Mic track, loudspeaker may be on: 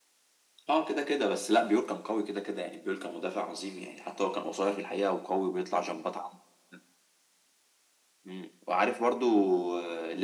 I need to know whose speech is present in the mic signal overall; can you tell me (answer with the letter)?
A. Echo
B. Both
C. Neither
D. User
A